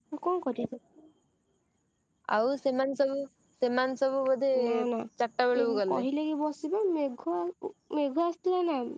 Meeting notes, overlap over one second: none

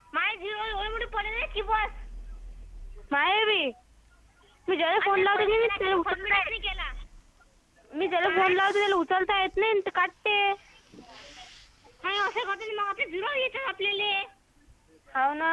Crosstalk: present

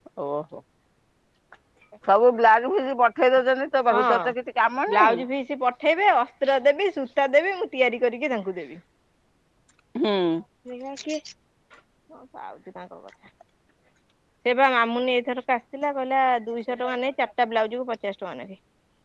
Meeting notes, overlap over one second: none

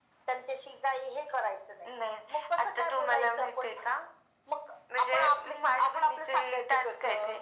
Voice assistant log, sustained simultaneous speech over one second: present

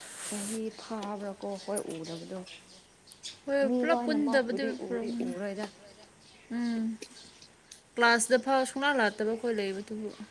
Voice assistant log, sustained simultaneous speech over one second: present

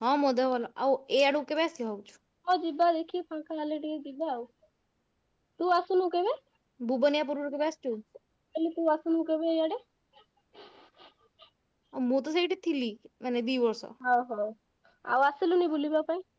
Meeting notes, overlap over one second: none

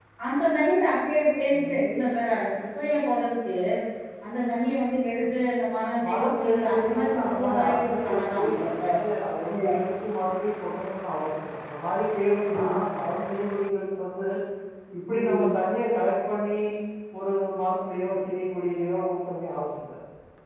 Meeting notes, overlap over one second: present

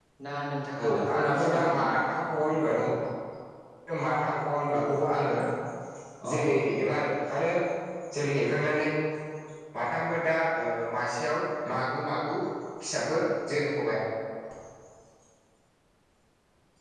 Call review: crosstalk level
present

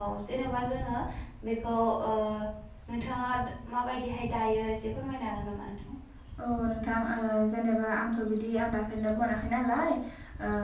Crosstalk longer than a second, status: none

